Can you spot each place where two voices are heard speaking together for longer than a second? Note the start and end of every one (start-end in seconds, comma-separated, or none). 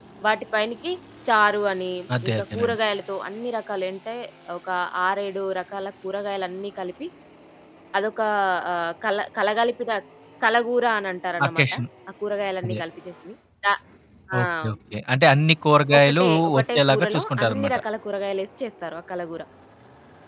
16.0-17.8